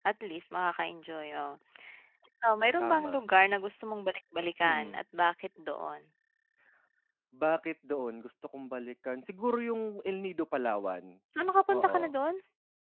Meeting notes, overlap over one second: none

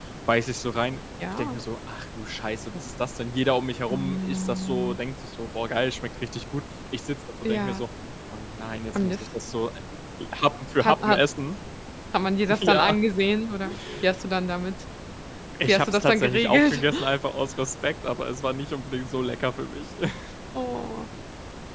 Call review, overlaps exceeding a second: present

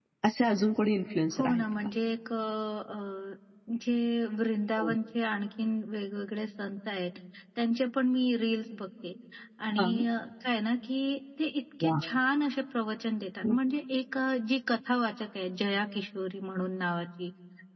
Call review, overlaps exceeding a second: none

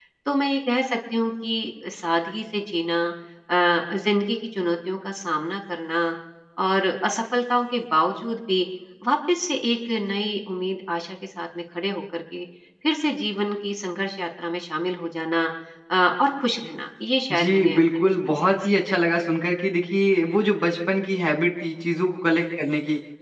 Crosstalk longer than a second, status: present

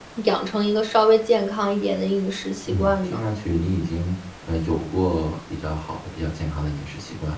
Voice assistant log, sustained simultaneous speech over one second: none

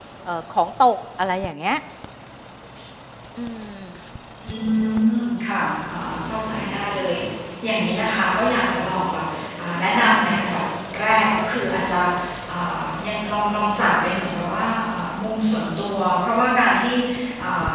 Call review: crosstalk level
none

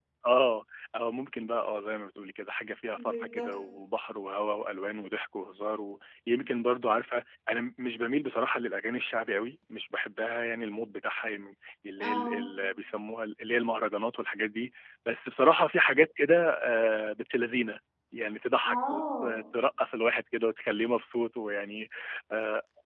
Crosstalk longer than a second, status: none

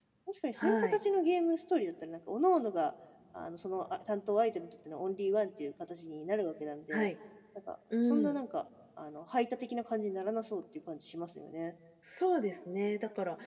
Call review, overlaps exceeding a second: none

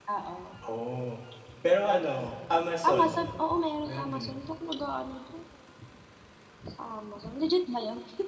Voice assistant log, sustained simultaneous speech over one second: none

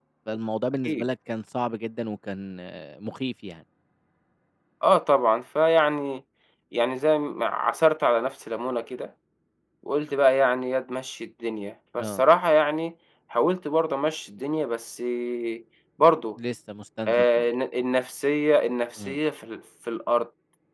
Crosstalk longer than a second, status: none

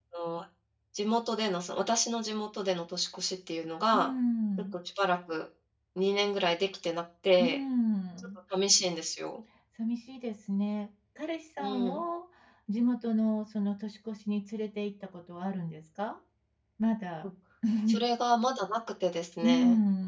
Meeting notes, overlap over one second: none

